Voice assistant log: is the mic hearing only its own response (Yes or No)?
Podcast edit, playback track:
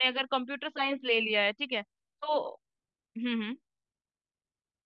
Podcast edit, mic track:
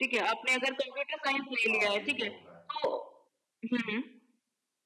No